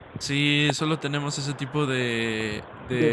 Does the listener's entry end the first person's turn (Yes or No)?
No